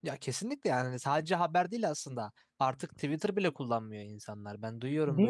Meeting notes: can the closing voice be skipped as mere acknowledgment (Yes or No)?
Yes